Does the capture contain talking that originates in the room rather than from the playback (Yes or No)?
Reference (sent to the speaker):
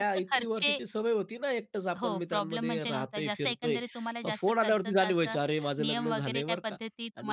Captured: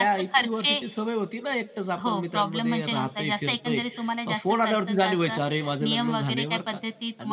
No